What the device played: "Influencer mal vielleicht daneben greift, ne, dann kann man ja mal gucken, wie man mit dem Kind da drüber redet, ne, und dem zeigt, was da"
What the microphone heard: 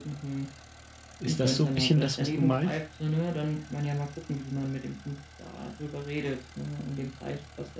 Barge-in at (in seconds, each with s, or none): 1.2 s